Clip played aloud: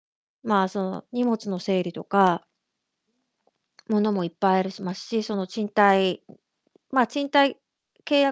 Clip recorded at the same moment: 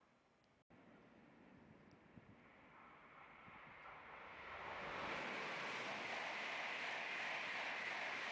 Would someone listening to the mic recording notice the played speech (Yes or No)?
No